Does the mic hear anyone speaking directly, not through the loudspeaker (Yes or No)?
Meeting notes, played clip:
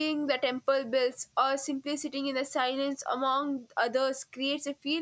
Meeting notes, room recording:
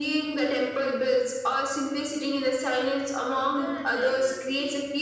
Yes